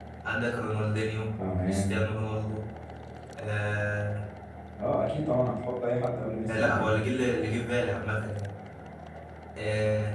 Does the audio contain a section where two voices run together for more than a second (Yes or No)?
No